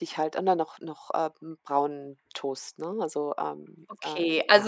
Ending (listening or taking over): taking over